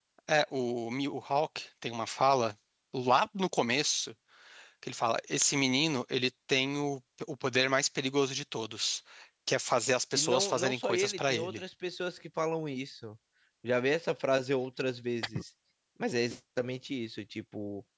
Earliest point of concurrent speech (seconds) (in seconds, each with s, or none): 10.1 s